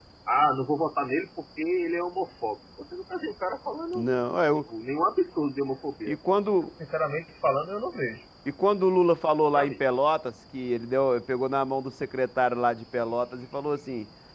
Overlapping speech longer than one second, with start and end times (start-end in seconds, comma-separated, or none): none